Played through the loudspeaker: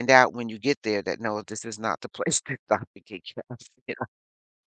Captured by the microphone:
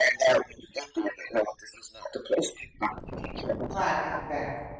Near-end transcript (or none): Right, exact